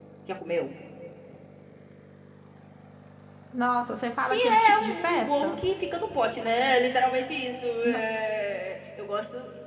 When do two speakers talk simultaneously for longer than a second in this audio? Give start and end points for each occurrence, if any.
4.2-5.6

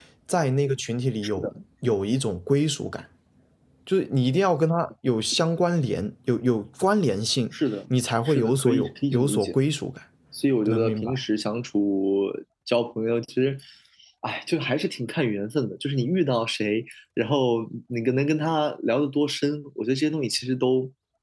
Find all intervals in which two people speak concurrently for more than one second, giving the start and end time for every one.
8.2-9.6

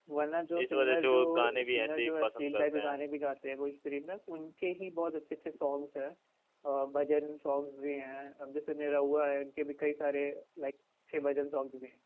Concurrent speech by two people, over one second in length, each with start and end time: 0.6-3.0

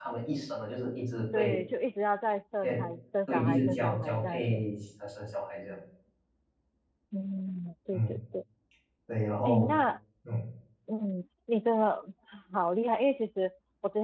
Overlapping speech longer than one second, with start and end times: 3.3-4.6

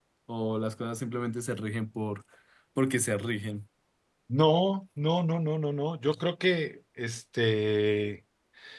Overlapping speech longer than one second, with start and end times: none

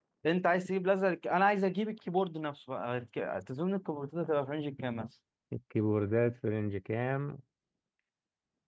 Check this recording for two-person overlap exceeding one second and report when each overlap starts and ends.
none

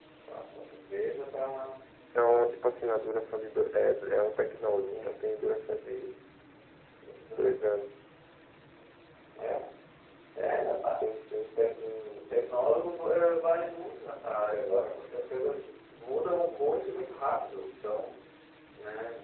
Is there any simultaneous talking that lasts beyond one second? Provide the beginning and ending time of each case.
none

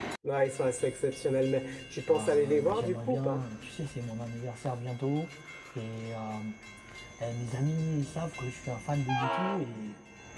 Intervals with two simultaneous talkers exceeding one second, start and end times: 2.1-3.4

